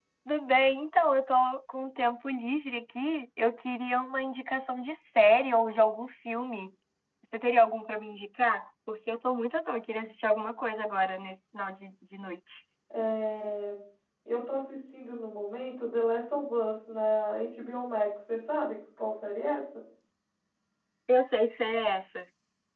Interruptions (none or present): none